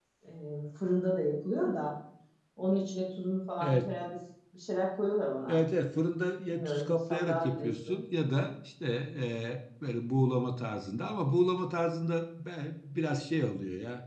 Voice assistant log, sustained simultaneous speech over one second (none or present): present